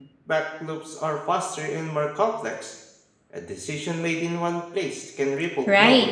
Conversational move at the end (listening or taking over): taking over